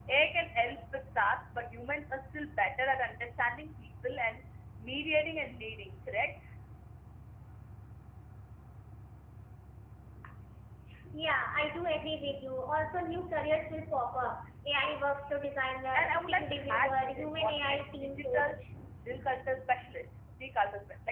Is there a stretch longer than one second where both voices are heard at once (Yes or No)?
Yes